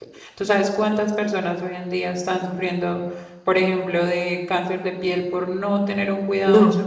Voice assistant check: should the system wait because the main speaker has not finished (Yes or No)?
No